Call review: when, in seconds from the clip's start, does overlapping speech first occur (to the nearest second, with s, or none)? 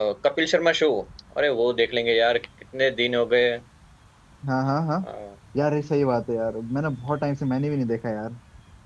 none